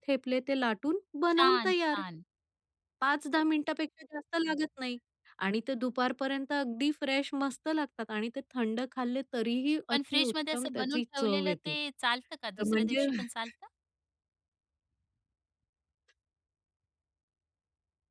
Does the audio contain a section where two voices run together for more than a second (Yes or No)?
Yes